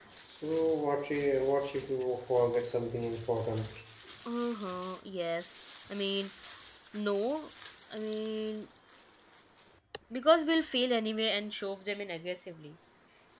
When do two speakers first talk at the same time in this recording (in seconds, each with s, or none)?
none